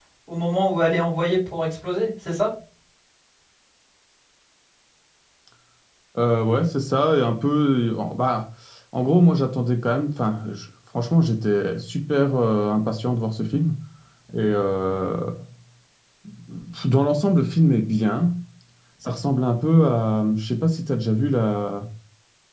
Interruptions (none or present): none